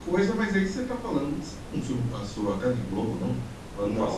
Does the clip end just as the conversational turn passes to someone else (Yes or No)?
Yes